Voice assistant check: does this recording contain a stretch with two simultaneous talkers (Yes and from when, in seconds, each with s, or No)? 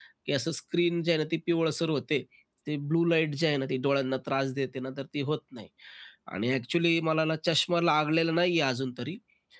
No